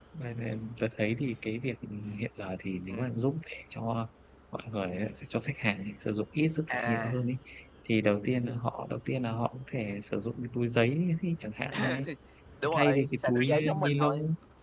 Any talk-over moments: Yes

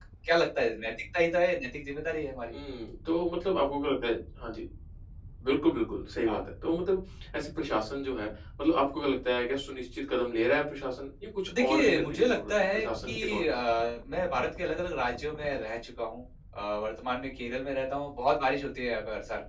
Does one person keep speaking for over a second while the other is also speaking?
Yes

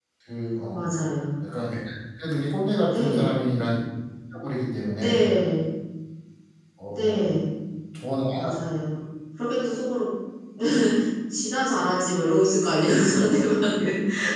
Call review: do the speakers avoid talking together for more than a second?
Yes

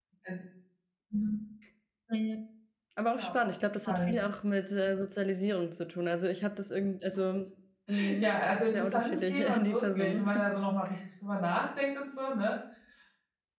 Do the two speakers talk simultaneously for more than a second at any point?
Yes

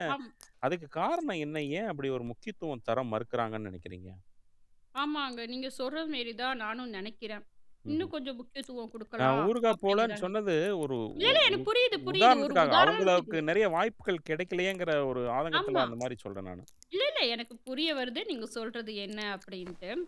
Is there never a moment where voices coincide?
No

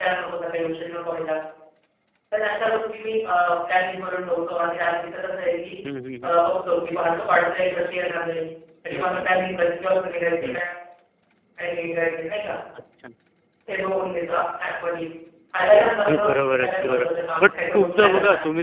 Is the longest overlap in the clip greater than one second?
Yes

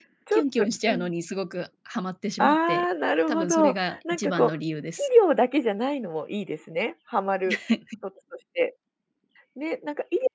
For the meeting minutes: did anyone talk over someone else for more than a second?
Yes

